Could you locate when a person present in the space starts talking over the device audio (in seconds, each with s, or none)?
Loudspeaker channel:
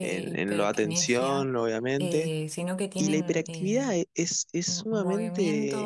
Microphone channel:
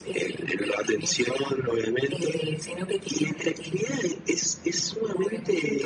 none